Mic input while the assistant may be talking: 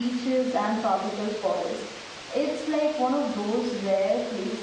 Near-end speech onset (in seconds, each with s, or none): none